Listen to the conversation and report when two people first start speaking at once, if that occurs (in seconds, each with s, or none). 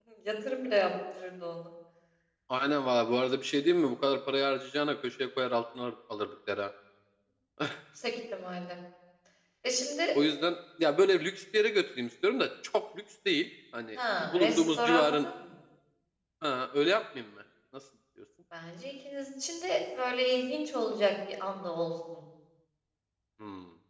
13.9 s